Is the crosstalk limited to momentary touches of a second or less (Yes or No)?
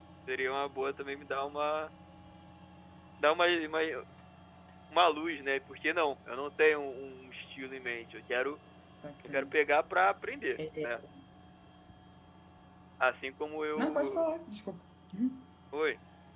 Yes